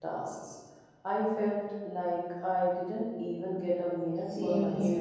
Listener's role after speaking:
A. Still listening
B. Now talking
B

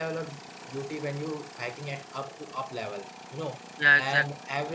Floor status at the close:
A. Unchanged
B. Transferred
A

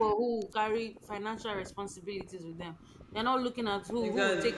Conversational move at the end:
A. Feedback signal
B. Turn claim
A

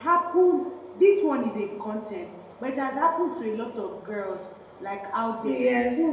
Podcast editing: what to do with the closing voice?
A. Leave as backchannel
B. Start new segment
A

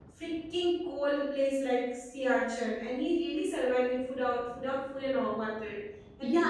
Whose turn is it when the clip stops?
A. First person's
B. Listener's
B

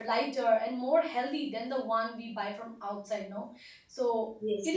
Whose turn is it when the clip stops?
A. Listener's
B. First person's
B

